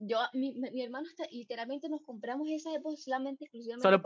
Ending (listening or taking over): taking over